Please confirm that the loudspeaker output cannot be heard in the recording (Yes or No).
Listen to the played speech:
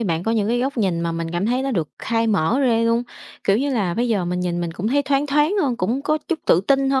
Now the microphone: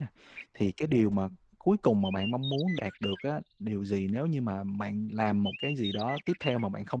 Yes